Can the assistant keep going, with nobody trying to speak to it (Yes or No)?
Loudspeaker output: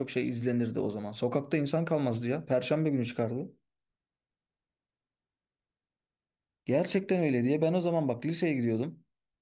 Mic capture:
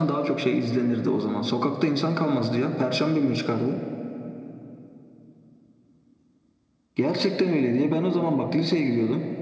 Yes